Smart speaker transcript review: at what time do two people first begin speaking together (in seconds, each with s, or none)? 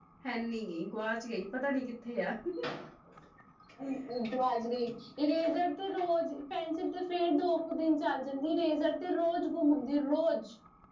none